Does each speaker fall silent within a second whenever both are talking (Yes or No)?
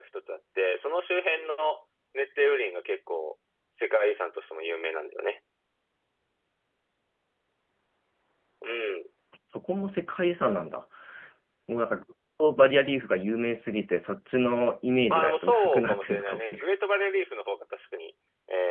No